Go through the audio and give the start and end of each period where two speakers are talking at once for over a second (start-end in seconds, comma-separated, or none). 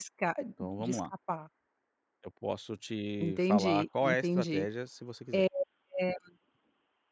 3.2-4.7